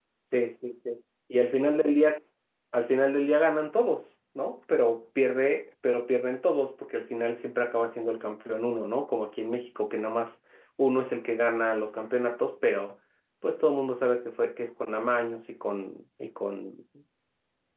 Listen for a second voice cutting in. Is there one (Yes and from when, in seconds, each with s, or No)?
No